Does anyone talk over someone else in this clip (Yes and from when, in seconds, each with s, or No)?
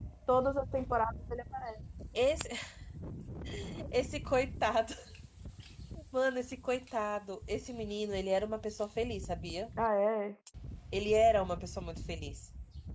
No